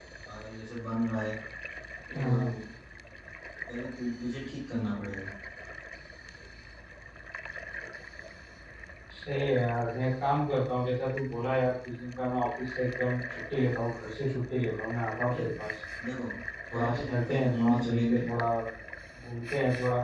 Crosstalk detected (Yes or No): Yes